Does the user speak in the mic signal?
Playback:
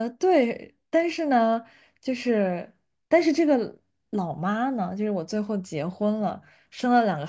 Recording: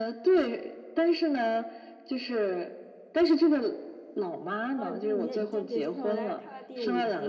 Yes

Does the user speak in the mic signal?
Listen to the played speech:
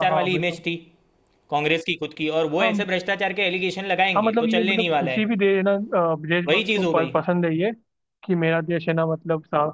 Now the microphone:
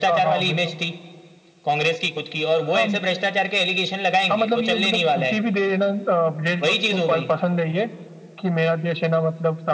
No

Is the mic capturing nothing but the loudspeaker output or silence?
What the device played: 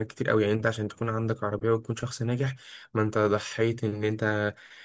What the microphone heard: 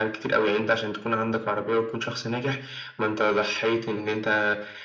Yes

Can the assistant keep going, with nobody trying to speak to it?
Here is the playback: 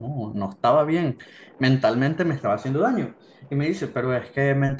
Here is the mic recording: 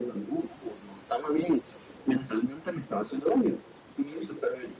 Yes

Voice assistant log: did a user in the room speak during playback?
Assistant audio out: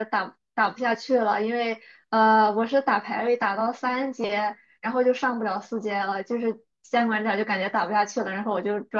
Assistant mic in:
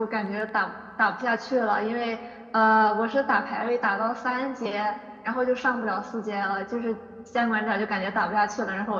No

